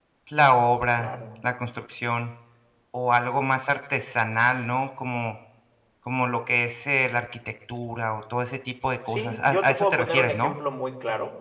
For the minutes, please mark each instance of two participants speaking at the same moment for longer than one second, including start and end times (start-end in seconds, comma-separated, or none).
9.1-10.5